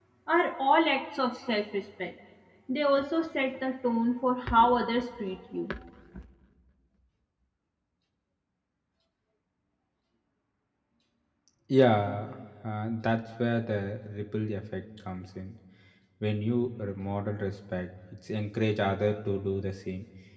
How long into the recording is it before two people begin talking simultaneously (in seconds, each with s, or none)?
none